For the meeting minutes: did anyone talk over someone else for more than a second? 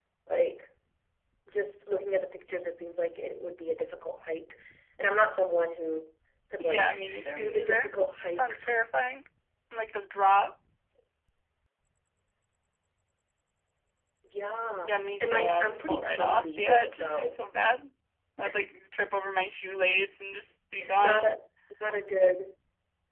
Yes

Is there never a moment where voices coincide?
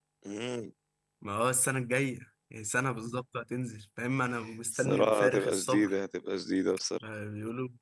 No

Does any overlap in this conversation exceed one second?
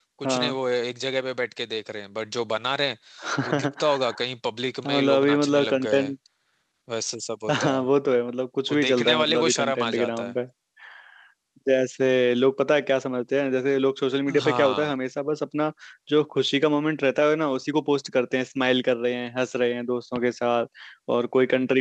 Yes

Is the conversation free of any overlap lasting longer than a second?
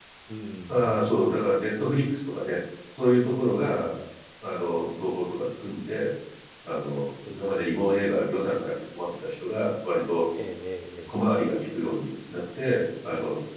Yes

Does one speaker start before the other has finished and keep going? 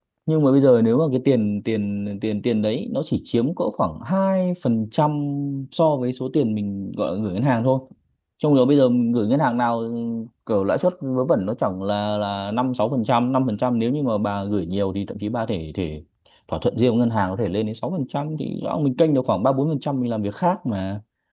No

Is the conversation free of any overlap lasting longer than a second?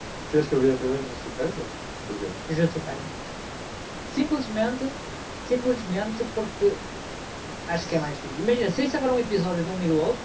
Yes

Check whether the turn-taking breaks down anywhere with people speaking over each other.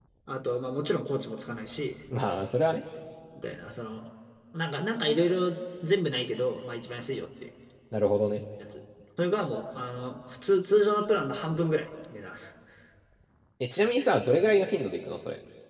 No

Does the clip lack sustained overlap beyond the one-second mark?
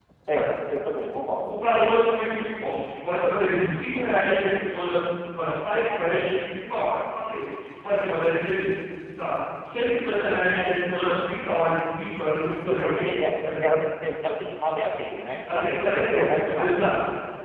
No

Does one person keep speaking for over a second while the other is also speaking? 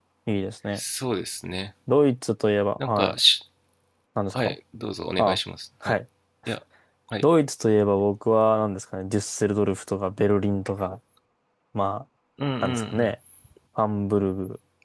No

